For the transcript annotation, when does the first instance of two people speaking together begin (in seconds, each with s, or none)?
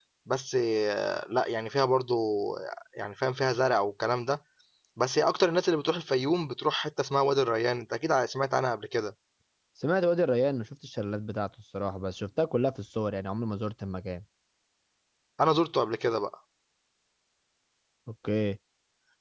none